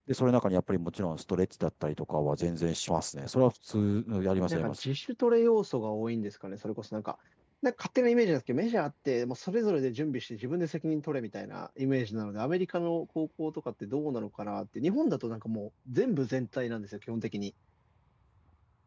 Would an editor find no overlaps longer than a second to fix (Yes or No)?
Yes